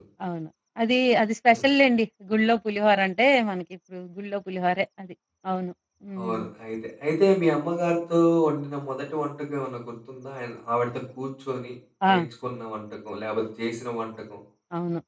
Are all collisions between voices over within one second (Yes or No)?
Yes